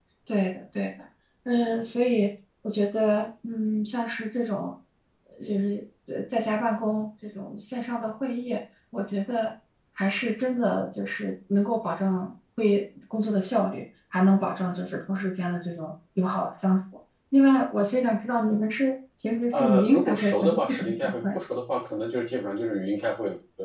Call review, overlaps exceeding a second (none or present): present